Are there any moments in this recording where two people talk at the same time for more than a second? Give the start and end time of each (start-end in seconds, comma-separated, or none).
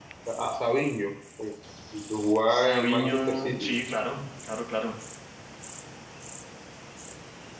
2.5-3.7